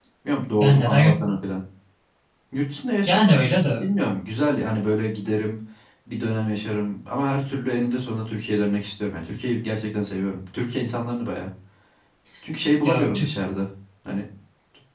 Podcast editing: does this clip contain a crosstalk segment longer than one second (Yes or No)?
No